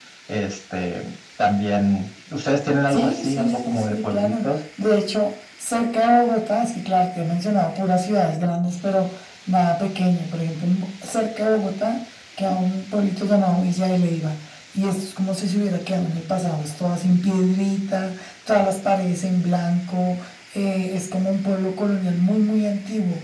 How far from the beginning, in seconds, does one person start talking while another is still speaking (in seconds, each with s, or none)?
2.9 s